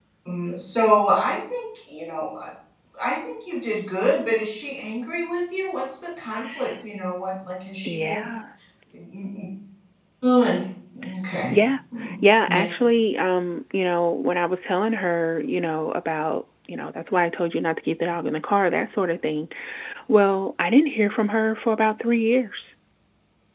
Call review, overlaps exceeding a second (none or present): none